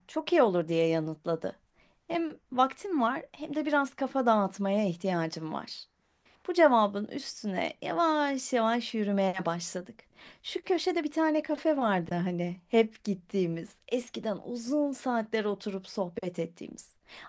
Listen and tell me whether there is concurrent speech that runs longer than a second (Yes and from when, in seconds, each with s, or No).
No